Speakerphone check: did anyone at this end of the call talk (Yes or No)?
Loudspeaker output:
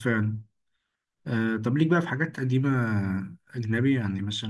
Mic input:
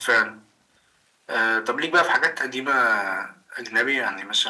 No